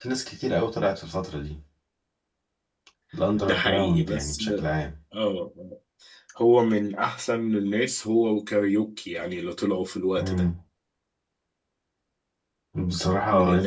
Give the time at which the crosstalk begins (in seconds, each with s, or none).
3.4 s